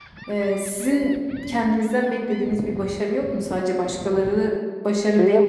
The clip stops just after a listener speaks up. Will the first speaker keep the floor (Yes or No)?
No